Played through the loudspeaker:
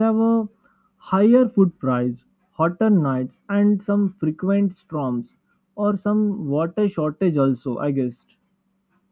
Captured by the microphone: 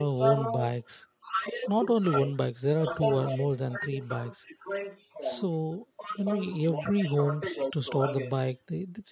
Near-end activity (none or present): present